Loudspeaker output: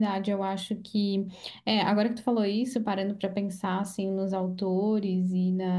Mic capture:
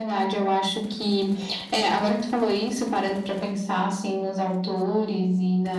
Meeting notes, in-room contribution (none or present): none